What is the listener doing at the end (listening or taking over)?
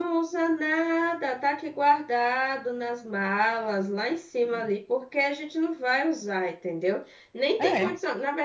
listening